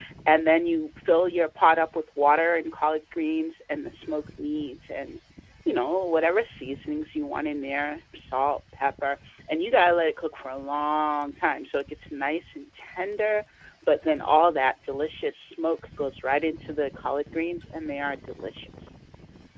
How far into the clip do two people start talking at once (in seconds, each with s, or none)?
none